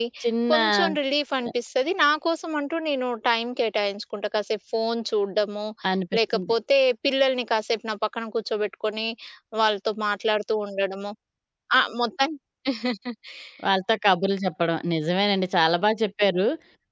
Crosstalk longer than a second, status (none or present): none